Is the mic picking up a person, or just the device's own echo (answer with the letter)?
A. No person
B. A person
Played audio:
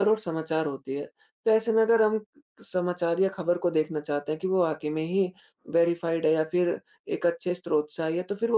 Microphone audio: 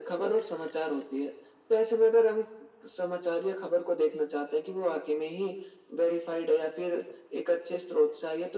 A